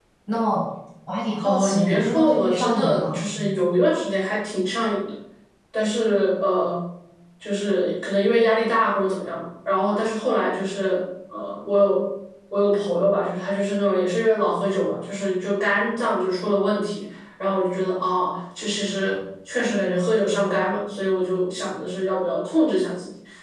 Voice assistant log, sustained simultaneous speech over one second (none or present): present